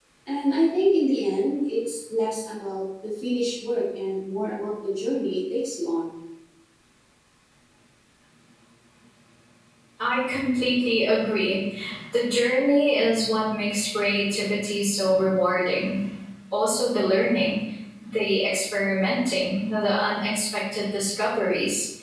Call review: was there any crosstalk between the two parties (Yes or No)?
No